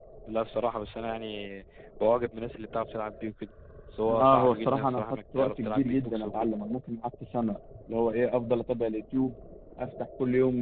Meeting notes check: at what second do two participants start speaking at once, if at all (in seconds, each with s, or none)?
4.1 s